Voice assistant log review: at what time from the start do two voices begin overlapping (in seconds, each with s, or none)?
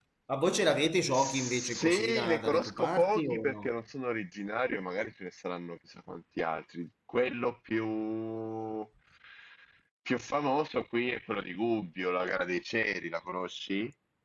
1.1 s